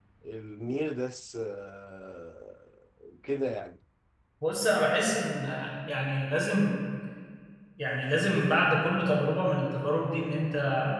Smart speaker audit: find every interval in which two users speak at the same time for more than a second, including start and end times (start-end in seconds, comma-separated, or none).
none